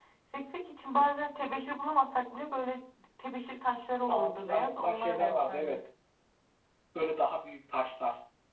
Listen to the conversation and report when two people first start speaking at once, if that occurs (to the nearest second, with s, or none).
4 s